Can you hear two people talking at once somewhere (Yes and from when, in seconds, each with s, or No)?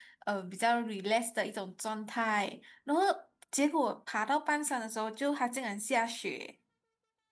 No